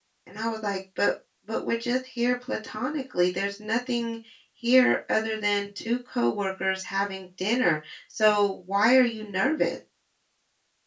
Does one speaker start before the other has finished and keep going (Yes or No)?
No